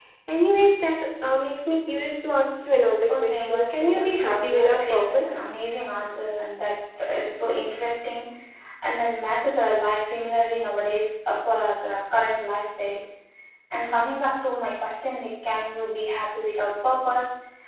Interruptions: present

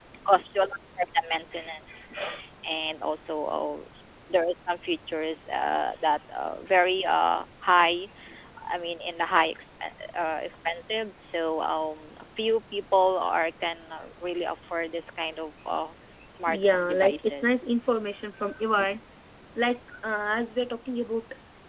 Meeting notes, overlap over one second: present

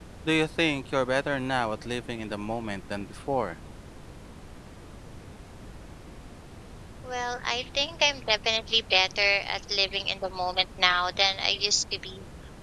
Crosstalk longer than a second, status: none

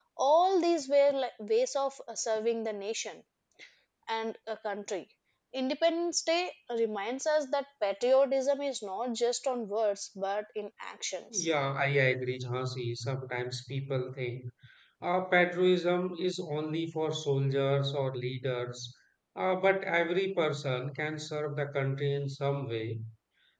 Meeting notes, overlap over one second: none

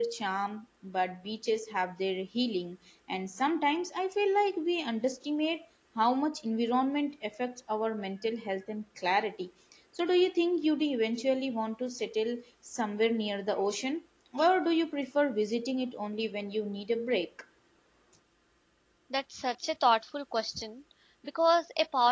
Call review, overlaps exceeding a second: none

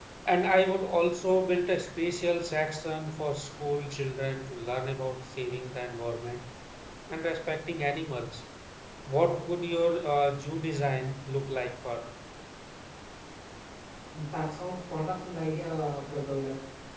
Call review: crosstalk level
none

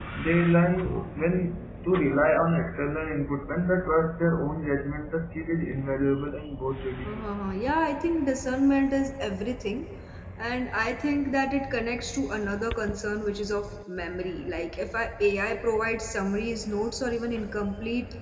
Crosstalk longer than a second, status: none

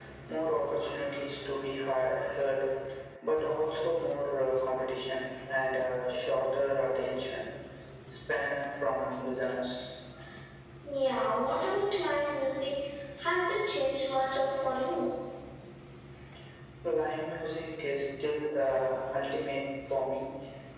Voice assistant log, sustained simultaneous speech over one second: none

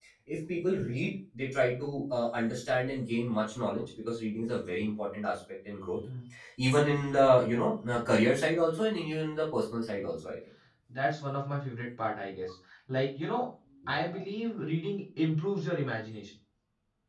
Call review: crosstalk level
none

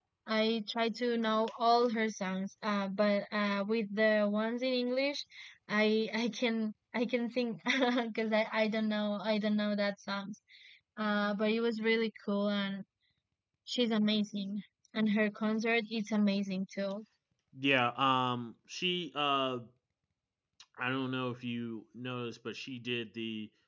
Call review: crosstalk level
none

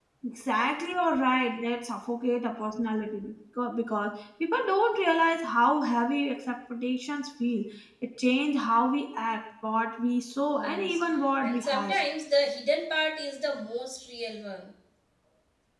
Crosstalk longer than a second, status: none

